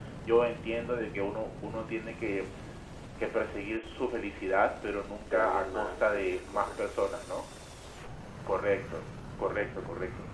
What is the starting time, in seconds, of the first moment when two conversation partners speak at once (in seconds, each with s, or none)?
5.3 s